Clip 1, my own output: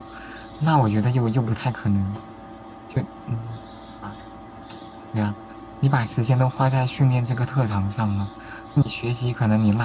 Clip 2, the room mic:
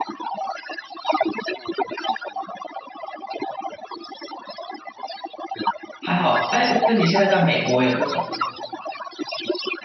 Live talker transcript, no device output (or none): 还好，哎，那你现在在美国有这种吗？